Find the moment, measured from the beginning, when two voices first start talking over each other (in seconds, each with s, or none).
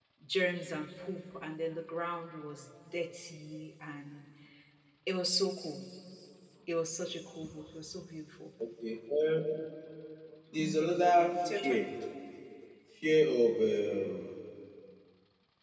10.6 s